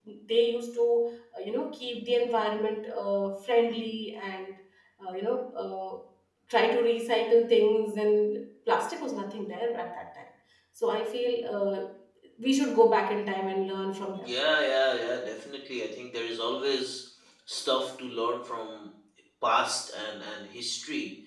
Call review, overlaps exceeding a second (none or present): none